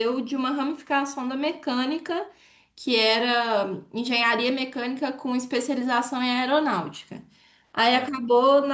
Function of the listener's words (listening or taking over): listening